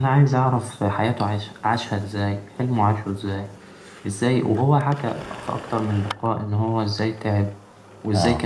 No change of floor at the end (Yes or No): Yes